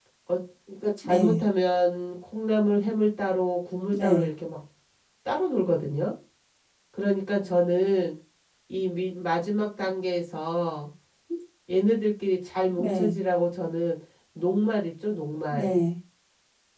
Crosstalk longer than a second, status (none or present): none